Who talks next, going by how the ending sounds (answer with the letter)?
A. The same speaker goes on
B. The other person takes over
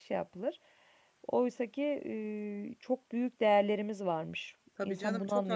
B